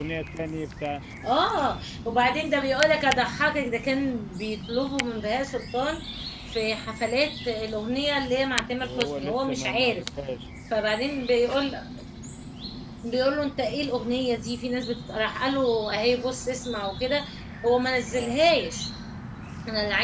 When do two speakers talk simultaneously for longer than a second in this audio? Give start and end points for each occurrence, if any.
8.8-10.0

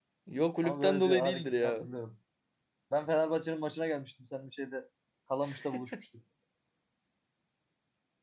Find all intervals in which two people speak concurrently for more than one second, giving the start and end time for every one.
0.6-1.9

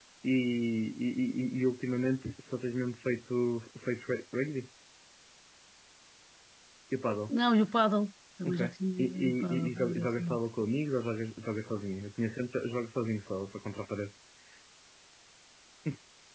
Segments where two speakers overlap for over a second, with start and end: 9.0-10.4

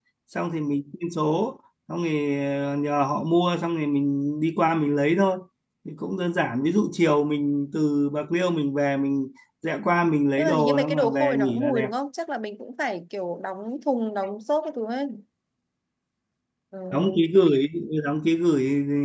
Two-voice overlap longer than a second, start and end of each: 10.4-11.9

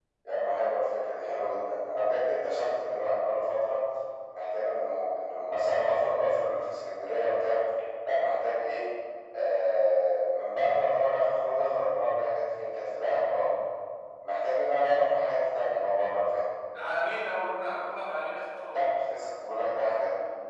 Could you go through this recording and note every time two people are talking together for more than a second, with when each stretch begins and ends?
none

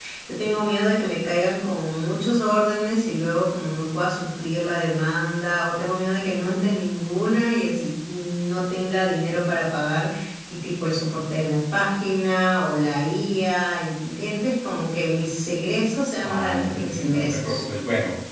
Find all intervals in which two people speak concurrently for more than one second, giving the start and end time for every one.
16.2-17.6

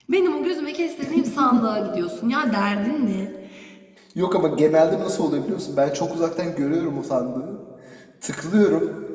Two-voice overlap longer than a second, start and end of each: none

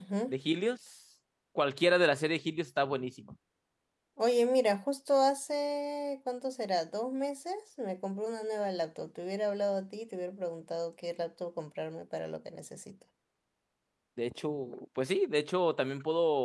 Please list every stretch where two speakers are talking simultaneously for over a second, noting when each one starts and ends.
none

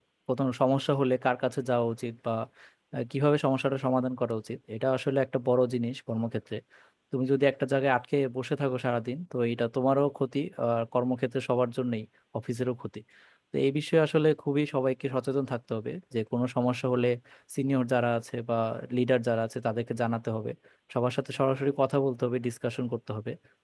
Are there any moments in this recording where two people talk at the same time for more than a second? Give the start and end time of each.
none

